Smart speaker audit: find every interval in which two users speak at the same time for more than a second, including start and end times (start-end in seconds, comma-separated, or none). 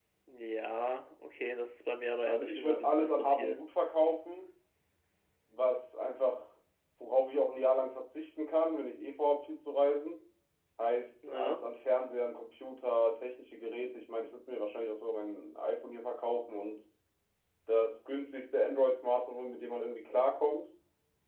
2.2-3.5